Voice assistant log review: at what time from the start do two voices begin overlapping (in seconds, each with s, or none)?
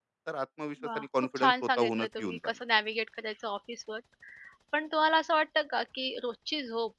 0.9 s